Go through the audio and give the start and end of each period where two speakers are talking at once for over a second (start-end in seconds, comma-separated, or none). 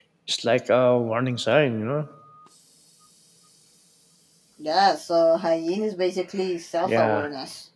none